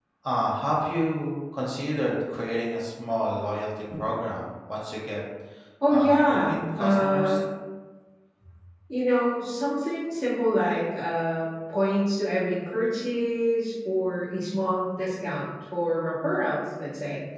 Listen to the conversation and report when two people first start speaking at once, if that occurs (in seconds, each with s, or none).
5.9 s